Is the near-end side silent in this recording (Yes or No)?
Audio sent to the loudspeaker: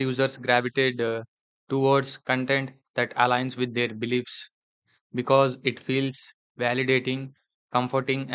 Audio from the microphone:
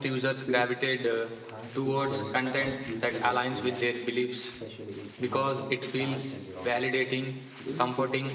No